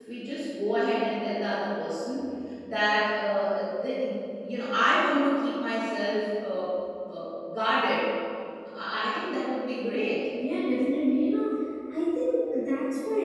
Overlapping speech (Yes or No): No